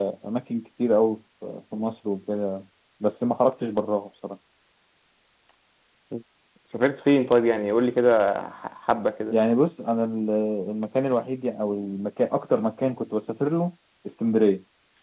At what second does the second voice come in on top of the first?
none

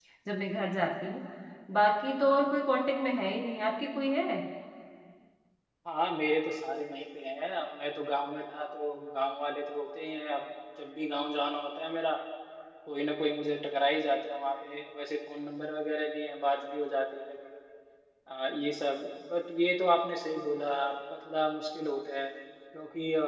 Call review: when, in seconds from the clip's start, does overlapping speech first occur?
none

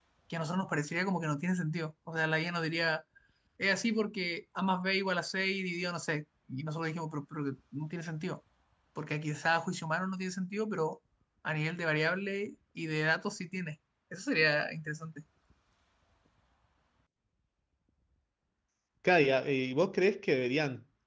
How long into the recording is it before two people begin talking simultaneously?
none

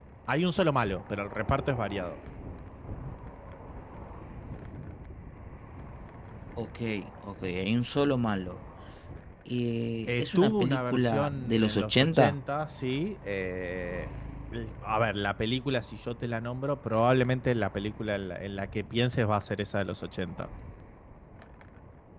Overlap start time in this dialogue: 10.1 s

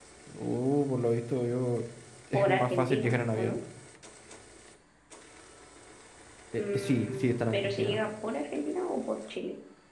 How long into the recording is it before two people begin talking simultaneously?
2.3 s

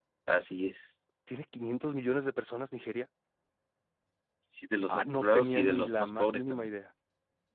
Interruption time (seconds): 4.9 s

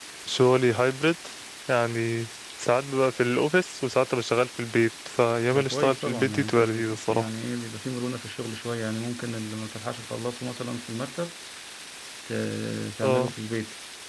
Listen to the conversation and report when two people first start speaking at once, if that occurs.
5.5 s

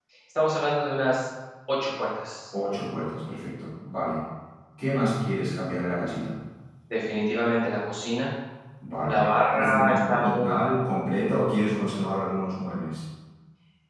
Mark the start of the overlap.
9.0 s

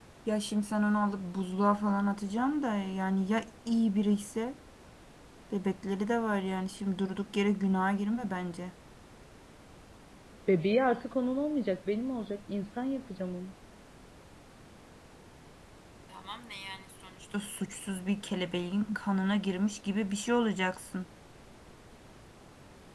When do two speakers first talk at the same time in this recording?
none

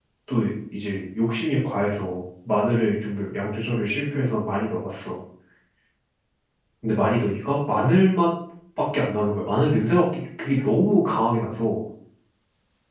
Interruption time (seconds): none

